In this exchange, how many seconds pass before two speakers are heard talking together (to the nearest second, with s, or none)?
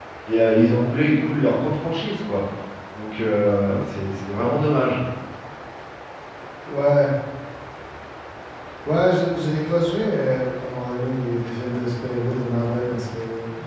none